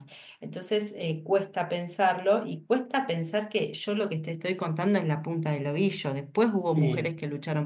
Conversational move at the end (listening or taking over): listening